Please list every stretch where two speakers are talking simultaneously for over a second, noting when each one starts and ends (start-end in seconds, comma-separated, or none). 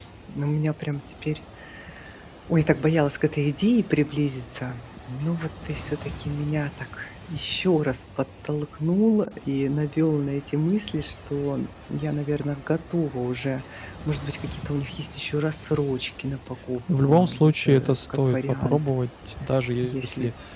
17.0-18.9